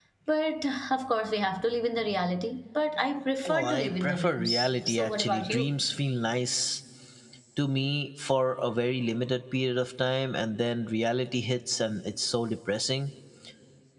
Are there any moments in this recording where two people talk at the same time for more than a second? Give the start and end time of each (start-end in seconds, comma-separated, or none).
3.5-5.7